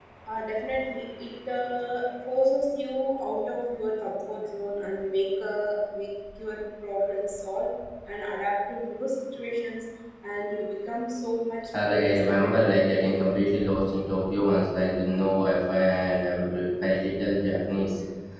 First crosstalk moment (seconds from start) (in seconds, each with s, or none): 11.7 s